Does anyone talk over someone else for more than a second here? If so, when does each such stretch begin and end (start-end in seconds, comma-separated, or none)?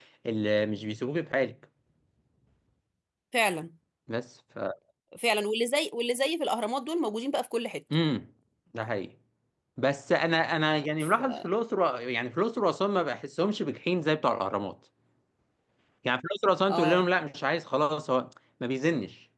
none